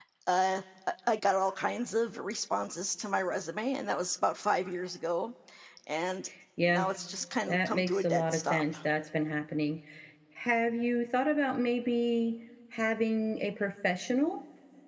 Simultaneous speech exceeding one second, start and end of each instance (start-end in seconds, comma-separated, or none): 7.5-8.8